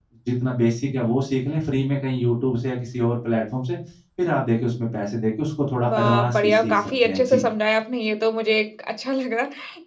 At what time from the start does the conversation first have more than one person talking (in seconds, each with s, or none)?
5.7 s